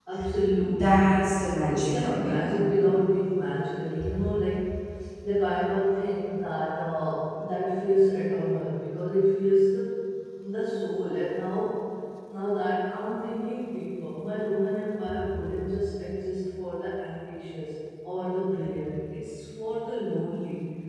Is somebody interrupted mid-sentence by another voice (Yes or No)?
Yes